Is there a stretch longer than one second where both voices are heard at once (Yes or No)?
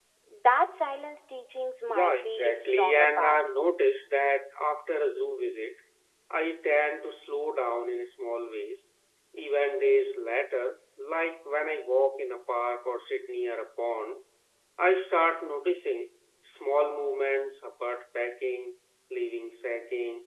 Yes